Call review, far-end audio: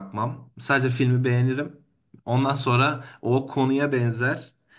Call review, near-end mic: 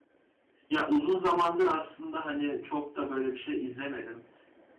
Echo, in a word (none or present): none